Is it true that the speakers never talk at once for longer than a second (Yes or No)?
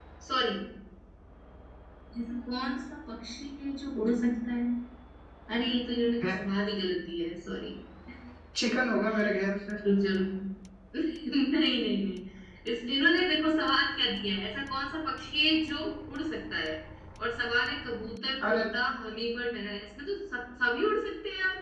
Yes